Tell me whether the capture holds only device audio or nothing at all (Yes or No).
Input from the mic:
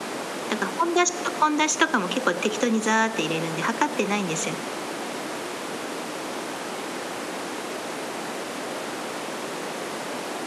No